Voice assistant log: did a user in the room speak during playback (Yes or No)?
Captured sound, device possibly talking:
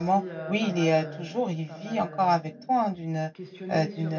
Yes